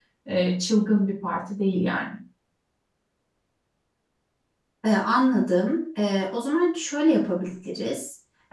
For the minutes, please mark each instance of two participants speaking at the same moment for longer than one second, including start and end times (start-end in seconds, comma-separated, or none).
none